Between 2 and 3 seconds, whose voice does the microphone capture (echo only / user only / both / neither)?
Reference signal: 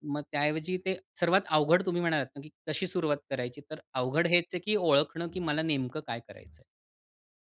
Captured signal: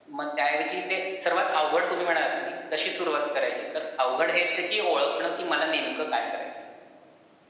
echo only